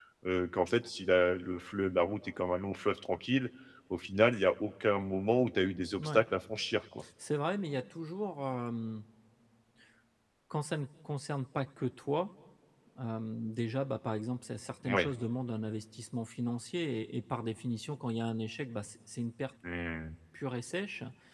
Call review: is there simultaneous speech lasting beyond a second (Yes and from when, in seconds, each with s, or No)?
No